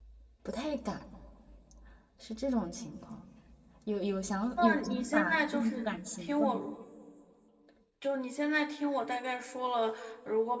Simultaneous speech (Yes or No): Yes